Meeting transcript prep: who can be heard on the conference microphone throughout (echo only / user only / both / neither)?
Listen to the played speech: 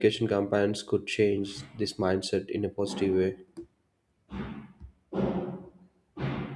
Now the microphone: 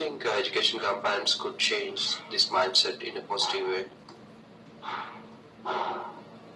echo only